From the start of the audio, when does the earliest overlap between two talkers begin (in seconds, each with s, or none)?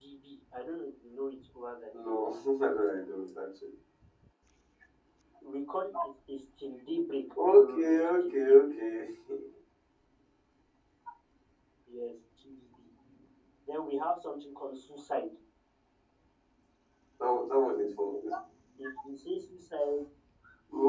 7.2 s